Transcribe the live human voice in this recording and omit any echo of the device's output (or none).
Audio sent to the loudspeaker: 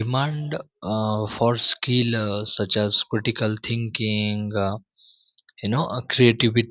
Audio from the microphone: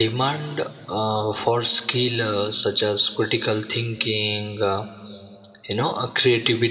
none